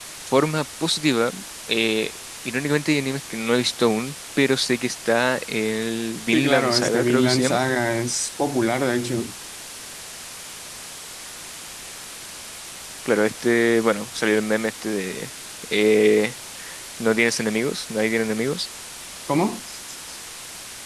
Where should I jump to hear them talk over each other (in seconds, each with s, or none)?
6.3 s